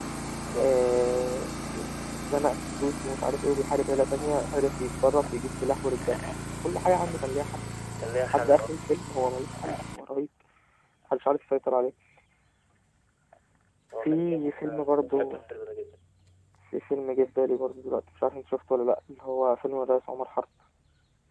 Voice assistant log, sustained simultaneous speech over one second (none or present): present